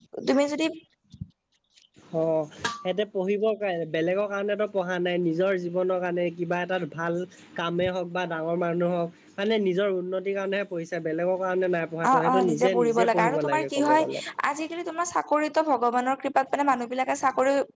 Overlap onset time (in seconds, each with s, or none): 12.0 s